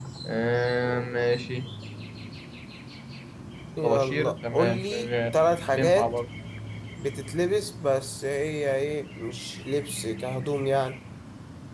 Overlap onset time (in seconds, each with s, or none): 3.8 s